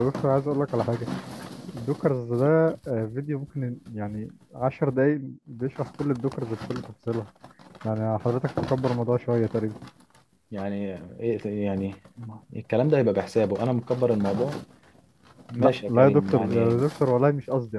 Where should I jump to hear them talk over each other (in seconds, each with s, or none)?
15.6 s